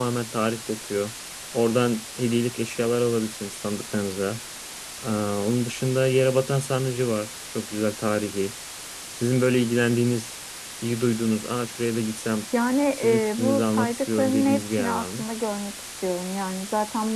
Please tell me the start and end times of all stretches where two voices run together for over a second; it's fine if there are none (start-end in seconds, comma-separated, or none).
13.0-15.2